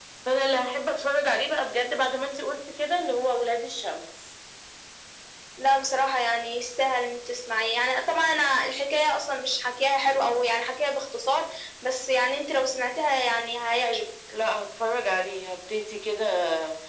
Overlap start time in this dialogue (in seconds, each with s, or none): none